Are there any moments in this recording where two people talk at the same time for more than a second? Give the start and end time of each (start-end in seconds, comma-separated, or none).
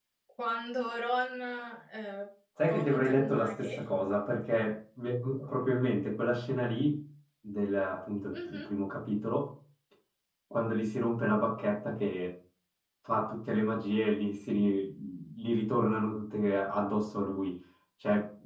2.6-3.8